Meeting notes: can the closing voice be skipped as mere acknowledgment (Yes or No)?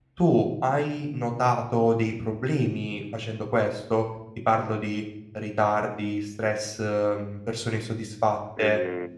Yes